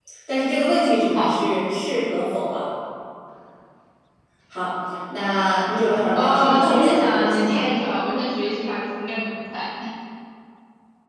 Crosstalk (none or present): present